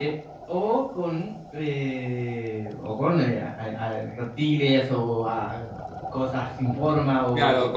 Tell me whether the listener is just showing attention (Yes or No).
No